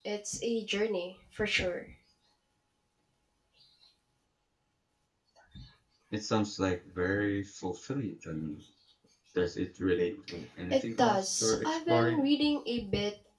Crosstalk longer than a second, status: present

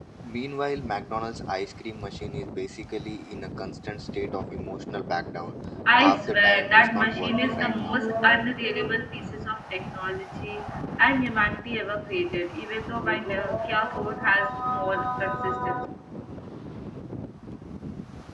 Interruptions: present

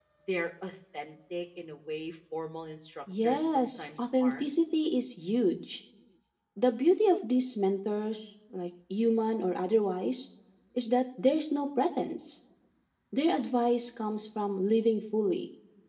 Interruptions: present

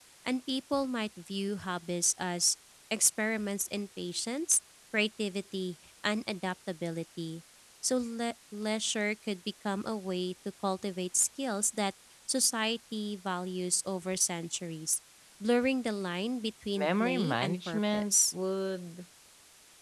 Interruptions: present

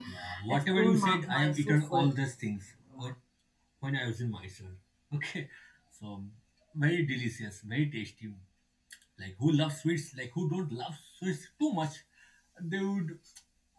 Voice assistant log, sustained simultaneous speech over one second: present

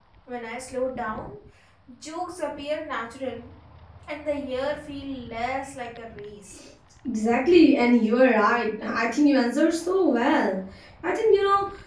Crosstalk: none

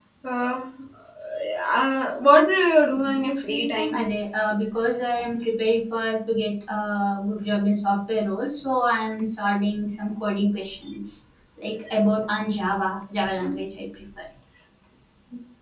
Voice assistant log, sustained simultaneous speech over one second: present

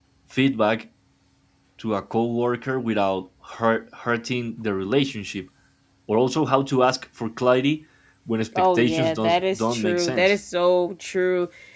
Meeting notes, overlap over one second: present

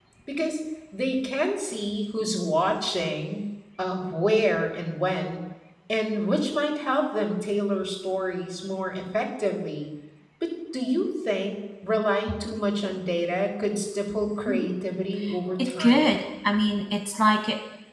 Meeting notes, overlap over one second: none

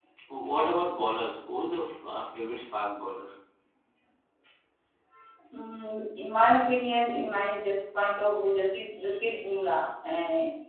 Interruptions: none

